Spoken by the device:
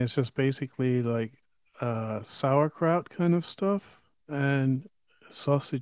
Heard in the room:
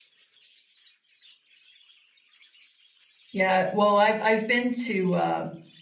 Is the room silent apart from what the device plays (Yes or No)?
No